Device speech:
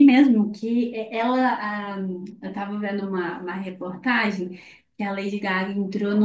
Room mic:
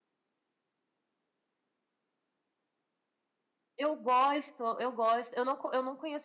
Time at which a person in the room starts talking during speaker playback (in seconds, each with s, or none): 3.8 s